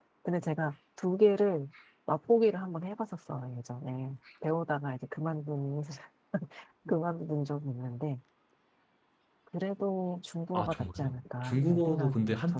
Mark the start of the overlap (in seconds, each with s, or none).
10.5 s